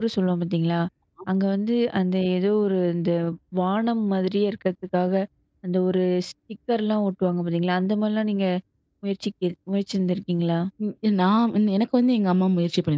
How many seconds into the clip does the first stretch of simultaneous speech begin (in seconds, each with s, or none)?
none